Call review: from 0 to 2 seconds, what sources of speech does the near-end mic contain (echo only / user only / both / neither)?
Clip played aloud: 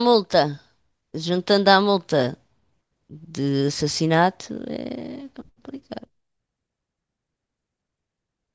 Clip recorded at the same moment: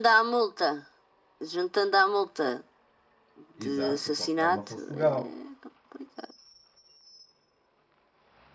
echo only